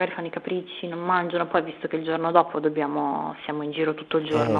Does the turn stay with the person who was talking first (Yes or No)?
No